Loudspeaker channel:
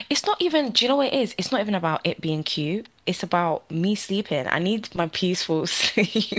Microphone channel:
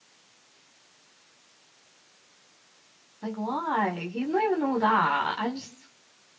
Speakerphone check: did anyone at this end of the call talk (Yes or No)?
Yes